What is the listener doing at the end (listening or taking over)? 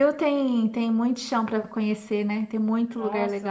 taking over